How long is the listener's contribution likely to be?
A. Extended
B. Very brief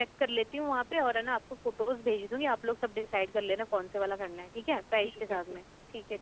A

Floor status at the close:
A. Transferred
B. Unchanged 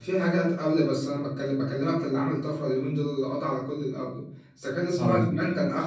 B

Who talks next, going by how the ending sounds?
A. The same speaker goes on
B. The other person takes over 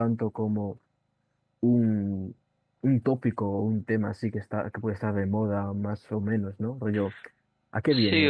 B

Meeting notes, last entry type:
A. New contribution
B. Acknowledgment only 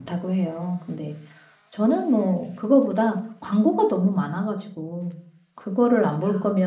B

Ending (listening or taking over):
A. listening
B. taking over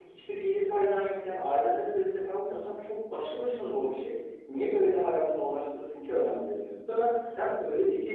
A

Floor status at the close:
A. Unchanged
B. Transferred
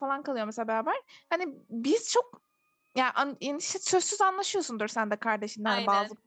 A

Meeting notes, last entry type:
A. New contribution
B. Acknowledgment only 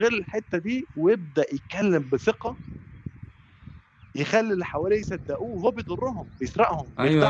A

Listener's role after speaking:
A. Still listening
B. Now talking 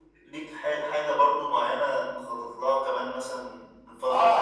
B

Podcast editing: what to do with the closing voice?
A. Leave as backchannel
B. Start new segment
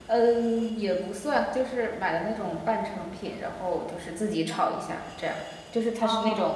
A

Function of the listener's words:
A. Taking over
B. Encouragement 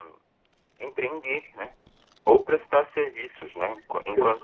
B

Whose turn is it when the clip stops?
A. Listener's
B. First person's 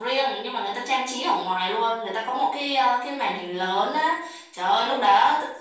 B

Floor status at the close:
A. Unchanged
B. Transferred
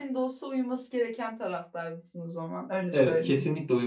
B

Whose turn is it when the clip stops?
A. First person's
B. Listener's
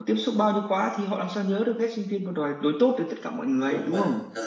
B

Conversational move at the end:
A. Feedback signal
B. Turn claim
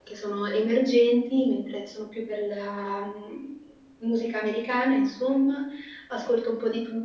A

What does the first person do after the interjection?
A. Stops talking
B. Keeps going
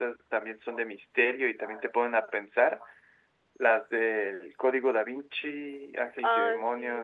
B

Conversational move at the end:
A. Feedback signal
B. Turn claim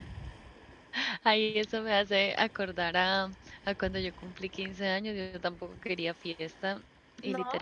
A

